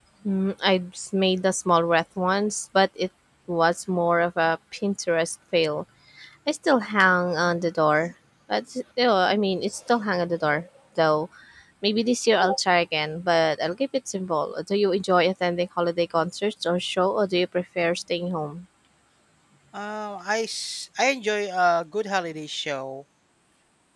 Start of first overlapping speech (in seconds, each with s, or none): none